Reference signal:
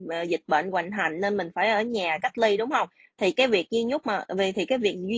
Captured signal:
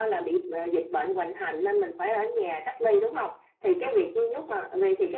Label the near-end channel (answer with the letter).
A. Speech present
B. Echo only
B